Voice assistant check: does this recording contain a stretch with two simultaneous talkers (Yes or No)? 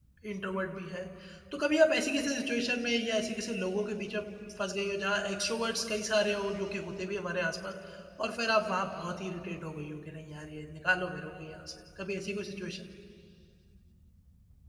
No